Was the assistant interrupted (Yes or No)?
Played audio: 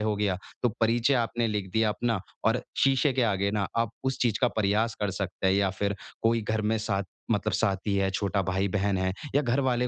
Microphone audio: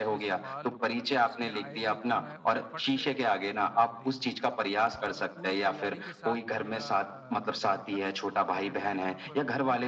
Yes